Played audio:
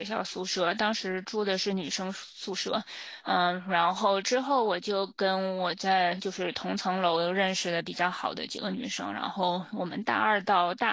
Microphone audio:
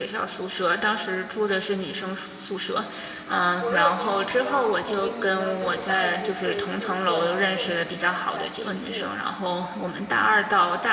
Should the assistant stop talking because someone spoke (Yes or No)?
Yes